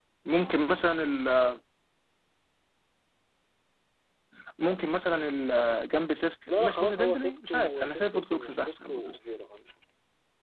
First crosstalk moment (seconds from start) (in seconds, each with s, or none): 6.5 s